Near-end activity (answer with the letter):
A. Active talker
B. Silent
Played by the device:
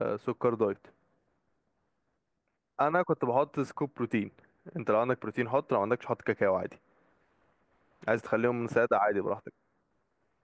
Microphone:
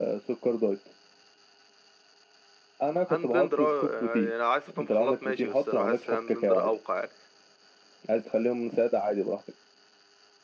A